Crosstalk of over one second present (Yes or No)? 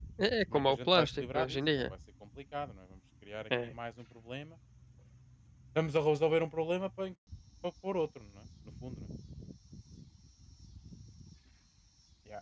Yes